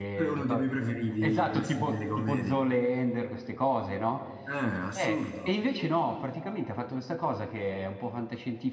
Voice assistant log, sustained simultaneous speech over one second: present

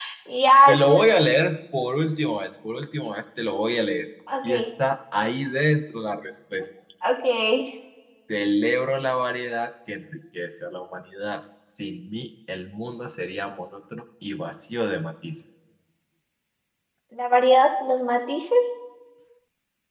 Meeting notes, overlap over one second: none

